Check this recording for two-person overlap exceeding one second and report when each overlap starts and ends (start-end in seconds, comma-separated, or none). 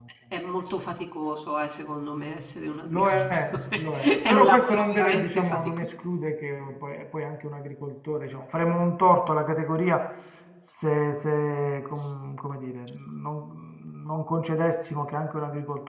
2.9-5.9